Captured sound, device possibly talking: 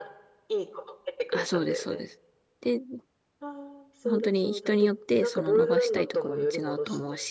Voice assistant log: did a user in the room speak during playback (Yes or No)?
Yes